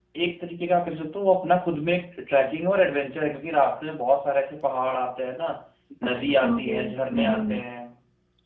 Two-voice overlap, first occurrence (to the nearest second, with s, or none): 6 s